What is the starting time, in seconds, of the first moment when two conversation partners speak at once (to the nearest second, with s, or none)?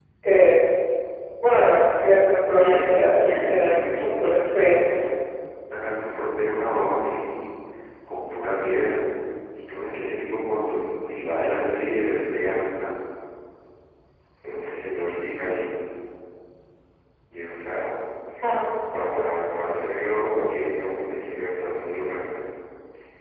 3 s